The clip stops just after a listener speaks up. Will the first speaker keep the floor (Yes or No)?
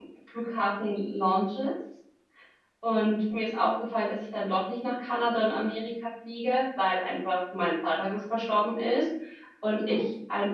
Yes